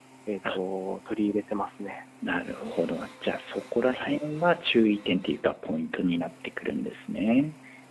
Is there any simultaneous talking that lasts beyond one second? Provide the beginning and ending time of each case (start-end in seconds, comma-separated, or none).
none